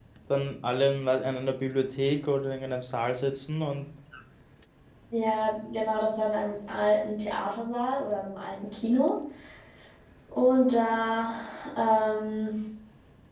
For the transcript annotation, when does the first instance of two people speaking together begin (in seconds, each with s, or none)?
none